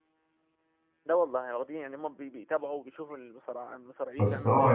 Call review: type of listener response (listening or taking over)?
taking over